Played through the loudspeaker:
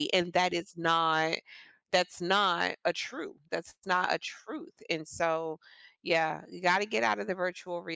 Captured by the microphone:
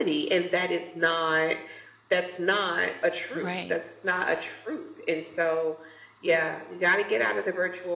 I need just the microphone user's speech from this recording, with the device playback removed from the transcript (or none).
Right,